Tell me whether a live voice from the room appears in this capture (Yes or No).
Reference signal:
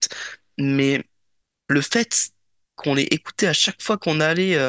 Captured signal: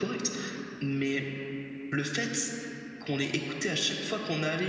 No